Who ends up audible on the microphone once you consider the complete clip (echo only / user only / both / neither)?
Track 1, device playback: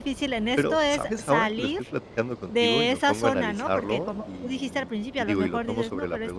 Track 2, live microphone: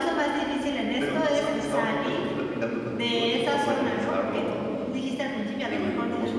echo only